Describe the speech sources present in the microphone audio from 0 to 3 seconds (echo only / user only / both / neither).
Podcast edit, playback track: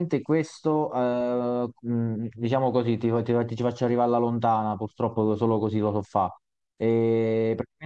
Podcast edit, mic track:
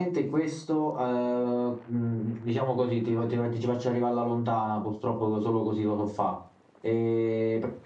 echo only